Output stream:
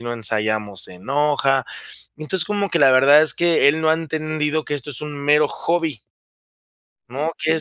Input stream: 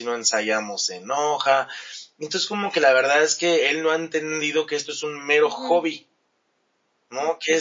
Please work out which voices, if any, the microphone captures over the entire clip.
both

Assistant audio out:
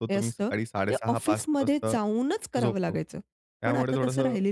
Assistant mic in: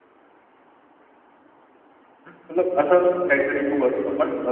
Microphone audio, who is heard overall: user only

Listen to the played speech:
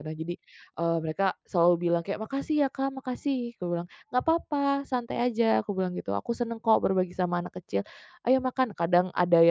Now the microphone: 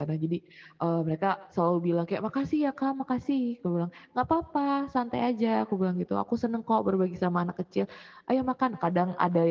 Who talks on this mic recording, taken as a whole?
echo only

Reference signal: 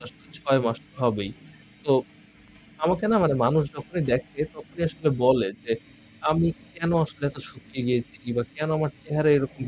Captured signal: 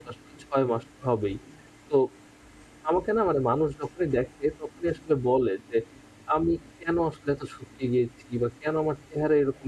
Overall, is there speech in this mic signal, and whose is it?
echo only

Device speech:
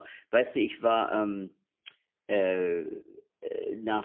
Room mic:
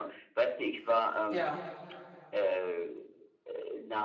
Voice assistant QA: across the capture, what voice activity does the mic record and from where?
both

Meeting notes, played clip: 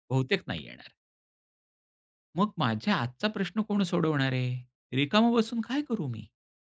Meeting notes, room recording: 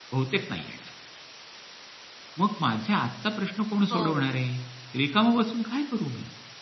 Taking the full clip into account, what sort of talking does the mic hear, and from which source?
both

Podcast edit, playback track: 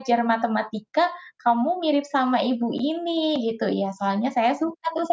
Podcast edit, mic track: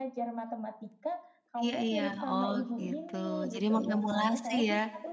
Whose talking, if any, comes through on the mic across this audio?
both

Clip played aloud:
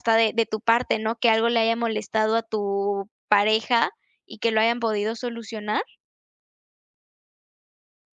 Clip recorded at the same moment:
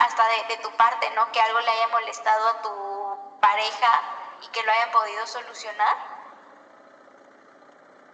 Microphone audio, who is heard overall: echo only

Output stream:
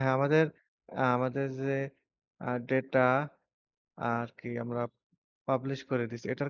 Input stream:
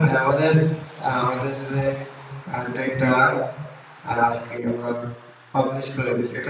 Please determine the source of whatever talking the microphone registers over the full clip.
echo only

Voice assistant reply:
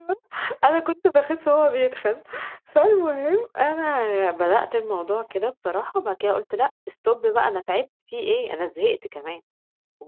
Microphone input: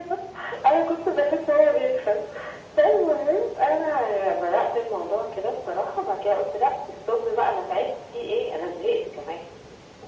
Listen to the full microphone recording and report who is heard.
echo only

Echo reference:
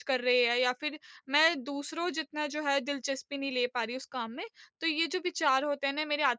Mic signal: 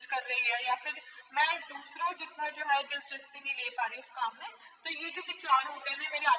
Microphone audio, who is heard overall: echo only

